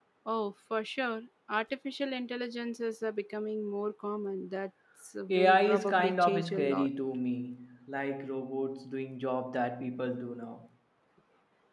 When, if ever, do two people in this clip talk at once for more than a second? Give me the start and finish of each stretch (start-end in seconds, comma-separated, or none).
5.3-6.9